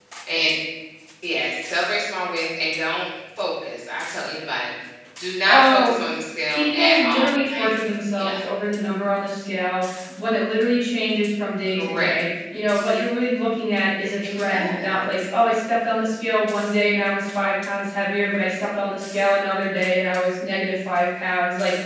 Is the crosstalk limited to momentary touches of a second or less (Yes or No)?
No